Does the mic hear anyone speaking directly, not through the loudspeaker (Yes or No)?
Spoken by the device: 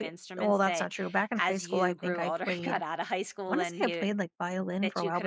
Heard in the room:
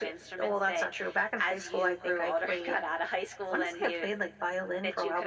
No